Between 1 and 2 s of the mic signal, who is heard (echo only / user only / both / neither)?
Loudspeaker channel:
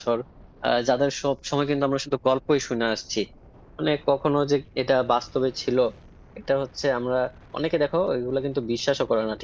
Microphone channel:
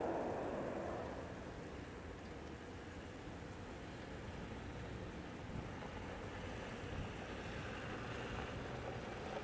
neither